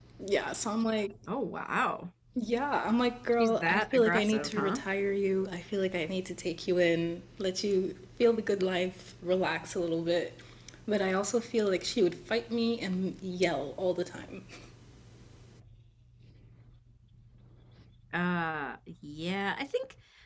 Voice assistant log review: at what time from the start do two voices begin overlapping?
3.4 s

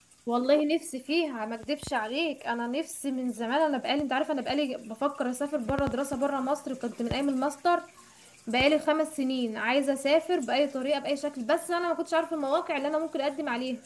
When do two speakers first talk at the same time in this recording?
none

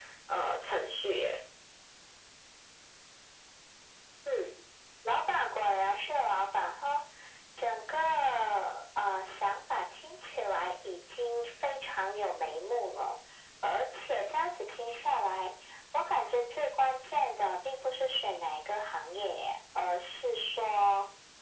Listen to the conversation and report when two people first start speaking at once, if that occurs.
none

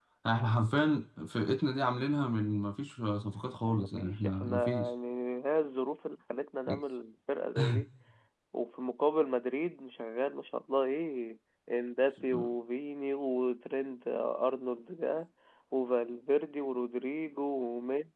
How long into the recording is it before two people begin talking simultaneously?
3.7 s

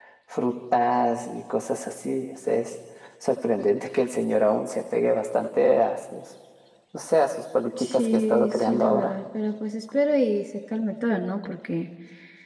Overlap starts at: 7.8 s

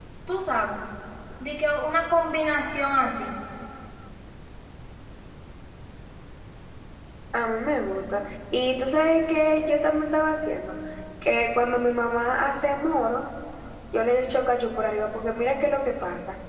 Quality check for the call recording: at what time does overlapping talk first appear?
none

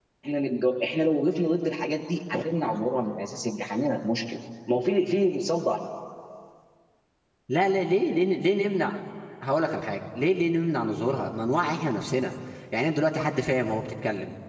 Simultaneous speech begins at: none

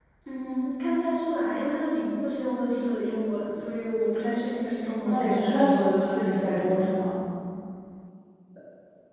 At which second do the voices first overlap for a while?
5.0 s

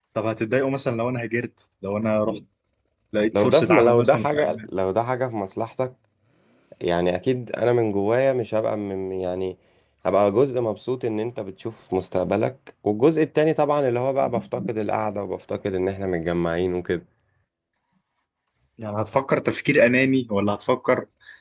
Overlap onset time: 3.4 s

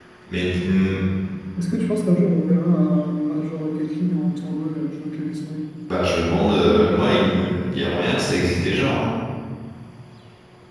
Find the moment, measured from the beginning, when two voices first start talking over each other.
none

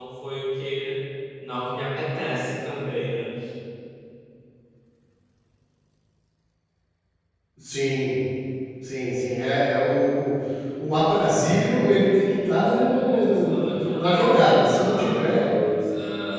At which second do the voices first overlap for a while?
12.5 s

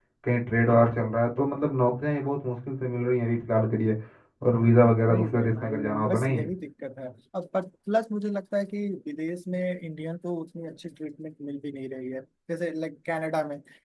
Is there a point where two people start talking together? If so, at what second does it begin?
5.1 s

